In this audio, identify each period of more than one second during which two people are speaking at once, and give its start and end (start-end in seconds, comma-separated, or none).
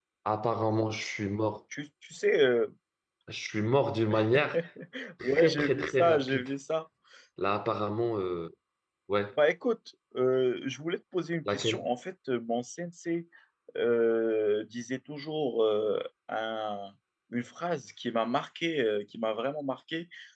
5.2-6.5